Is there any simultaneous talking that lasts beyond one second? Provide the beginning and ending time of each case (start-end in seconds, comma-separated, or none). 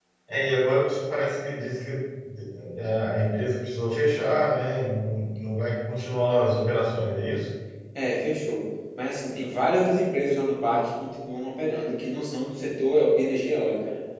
none